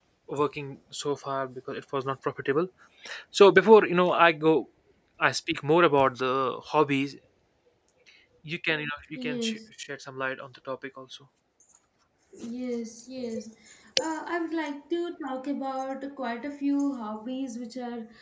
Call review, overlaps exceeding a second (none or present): none